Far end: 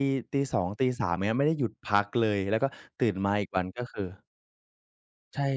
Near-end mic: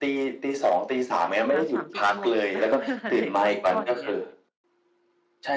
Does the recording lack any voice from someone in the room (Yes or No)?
No